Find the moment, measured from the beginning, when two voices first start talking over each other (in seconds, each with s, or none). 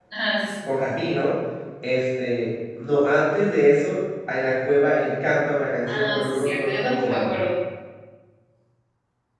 5.9 s